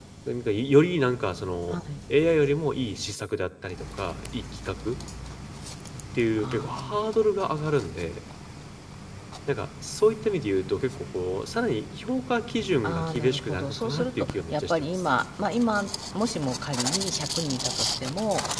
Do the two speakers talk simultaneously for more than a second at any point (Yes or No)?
Yes